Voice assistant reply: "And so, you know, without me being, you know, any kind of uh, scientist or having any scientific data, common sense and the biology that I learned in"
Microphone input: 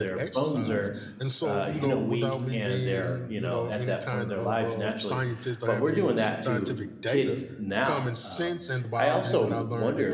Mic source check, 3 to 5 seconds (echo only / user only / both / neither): both